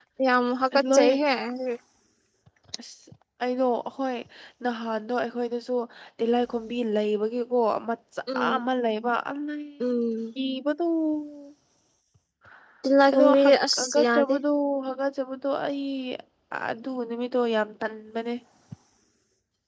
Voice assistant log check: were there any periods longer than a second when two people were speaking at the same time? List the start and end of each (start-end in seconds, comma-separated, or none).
13.1-14.3